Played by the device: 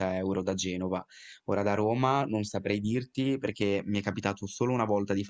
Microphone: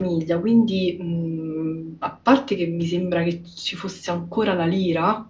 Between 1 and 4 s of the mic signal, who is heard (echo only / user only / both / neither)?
user only